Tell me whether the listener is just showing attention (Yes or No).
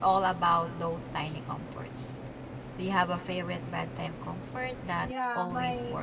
No